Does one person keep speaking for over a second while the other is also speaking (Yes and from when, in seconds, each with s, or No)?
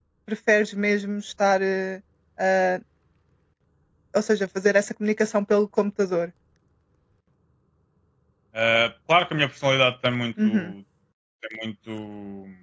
No